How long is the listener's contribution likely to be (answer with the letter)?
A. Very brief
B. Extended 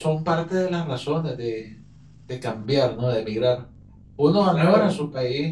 A